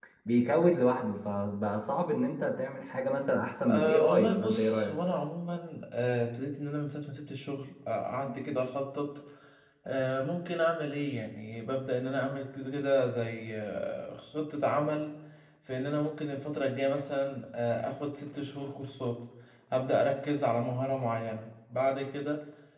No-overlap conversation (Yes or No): No